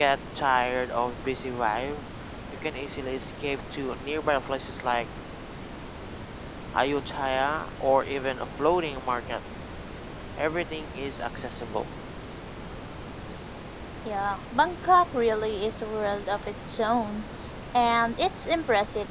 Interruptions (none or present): none